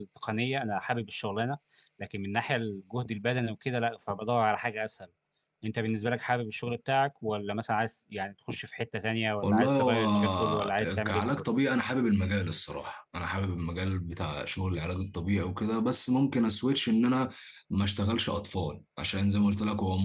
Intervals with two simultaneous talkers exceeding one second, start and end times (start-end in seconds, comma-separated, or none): 9.4-11.4